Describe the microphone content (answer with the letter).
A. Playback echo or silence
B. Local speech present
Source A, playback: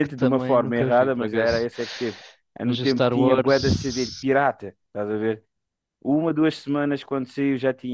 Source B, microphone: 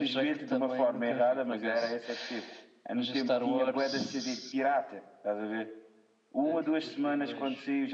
B